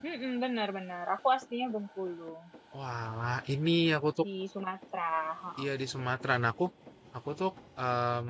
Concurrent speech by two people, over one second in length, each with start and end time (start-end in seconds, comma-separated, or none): none